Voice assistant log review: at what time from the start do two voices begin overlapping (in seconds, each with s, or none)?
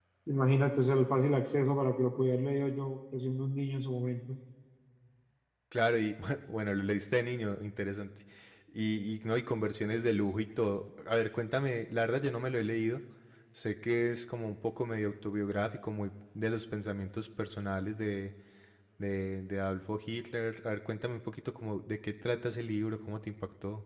none